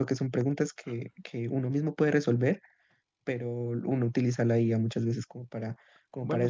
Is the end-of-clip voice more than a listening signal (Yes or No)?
No